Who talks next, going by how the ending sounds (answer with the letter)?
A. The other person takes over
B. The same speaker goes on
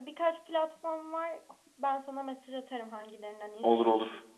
A